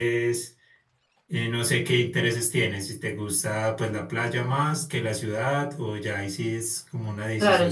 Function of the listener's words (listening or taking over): taking over